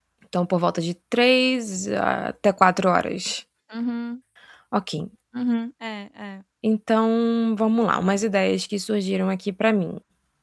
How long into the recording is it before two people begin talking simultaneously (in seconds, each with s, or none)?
none